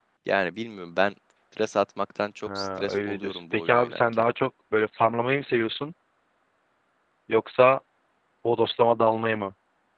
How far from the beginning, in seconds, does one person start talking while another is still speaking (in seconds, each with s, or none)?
2.5 s